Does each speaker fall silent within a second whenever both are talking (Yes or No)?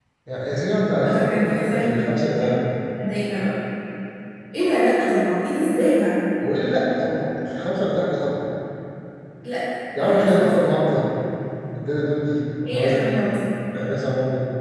No